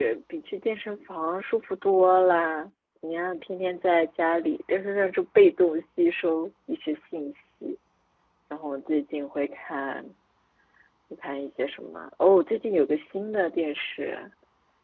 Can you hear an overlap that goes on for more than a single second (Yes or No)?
No